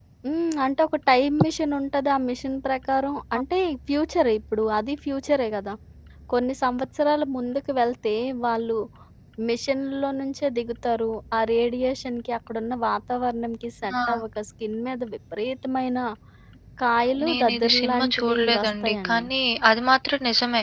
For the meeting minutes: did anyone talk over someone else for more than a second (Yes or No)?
Yes